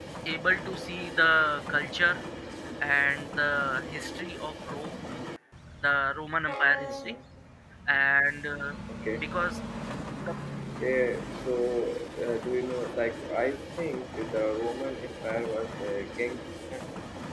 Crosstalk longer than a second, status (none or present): none